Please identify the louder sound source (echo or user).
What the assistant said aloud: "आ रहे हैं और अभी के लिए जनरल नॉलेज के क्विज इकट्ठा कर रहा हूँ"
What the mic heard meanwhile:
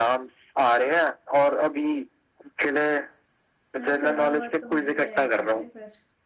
echo